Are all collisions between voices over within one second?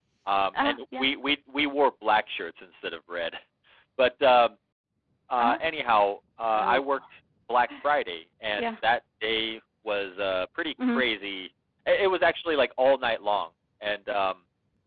Yes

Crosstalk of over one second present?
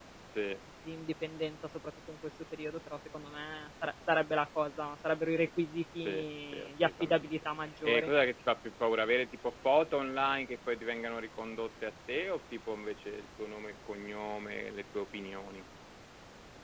Yes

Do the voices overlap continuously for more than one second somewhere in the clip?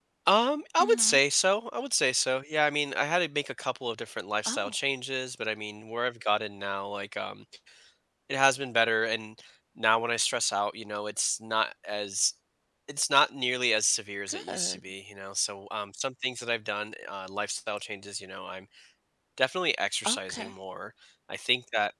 No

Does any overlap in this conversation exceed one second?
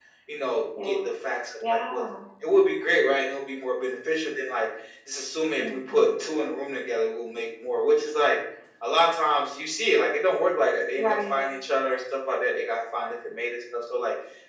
No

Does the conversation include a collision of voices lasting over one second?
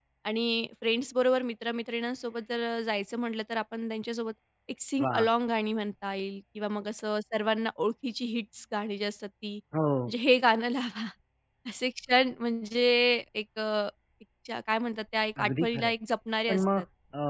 No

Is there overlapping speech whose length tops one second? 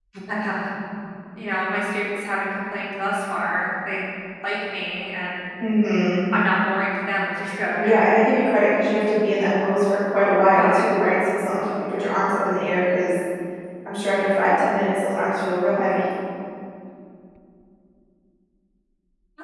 No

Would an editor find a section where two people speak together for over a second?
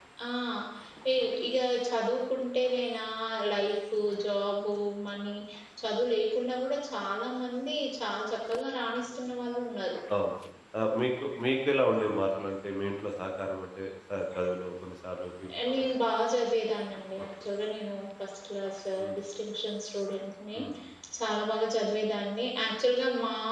No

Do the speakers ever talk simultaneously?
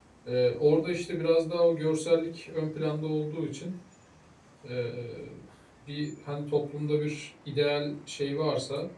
No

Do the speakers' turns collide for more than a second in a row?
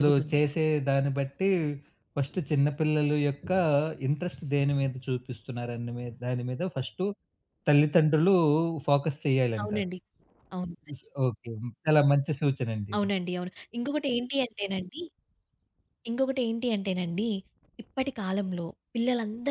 No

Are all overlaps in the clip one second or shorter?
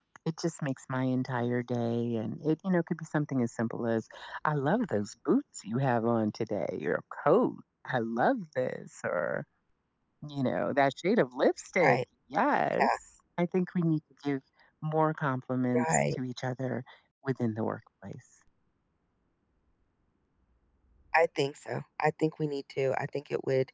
Yes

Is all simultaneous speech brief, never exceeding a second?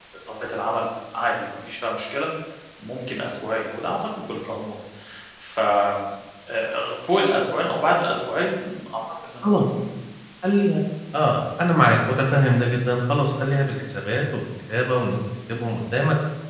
Yes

